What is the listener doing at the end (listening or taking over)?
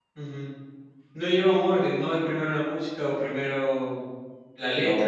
taking over